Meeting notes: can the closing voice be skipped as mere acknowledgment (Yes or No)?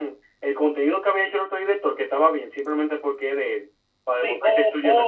No